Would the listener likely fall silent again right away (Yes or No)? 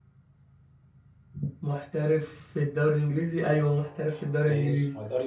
No